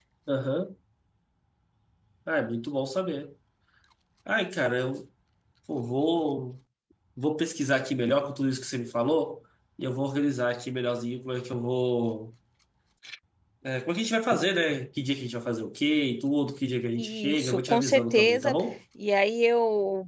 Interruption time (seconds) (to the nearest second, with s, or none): 17 s